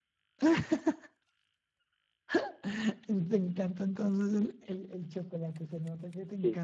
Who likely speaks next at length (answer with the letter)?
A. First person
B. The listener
B